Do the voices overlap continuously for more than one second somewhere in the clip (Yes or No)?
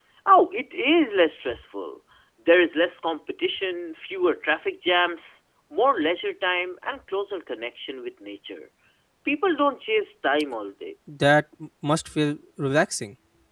No